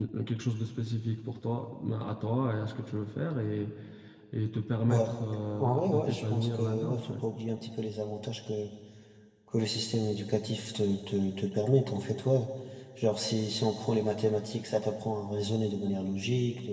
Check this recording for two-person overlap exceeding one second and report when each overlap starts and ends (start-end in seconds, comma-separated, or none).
5.6-7.2